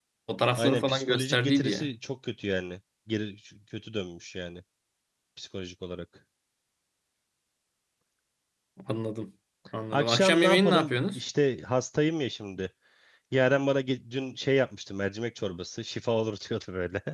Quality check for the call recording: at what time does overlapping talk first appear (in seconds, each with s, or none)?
0.6 s